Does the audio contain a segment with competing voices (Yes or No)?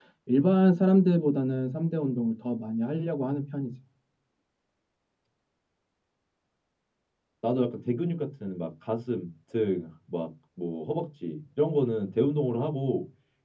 No